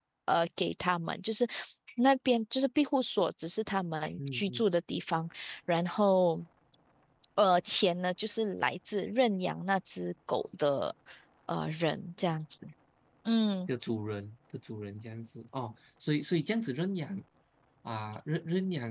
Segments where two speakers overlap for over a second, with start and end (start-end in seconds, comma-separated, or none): none